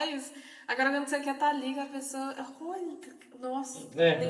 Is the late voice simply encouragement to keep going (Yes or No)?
No